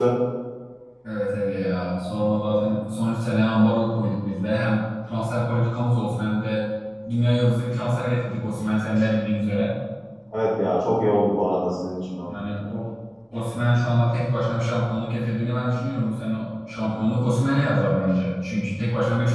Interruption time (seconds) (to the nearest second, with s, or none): none